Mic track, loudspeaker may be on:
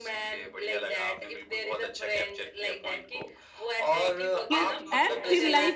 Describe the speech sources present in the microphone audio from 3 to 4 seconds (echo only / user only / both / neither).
echo only